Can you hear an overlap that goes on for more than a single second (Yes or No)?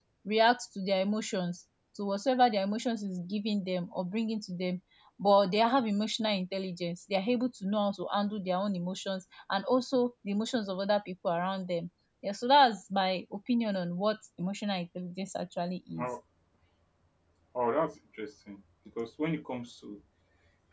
No